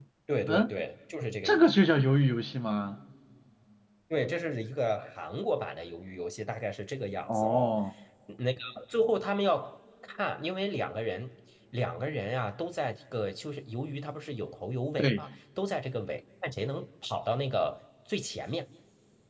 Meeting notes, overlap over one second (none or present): none